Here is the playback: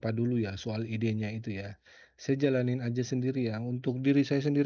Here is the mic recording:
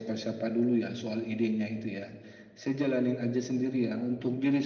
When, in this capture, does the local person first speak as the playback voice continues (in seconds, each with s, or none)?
none